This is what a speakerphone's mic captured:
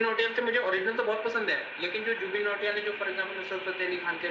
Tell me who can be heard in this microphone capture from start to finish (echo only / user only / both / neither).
echo only